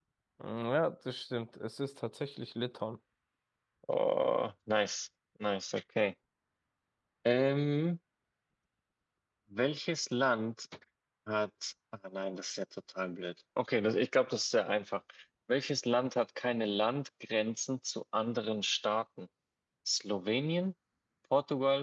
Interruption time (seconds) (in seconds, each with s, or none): none